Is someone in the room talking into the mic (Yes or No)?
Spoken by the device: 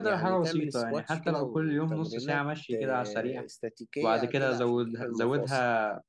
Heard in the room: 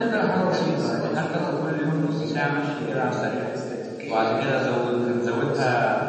No